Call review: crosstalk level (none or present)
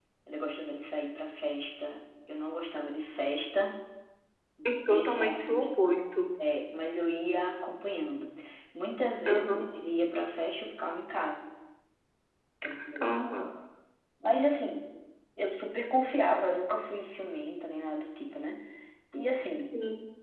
present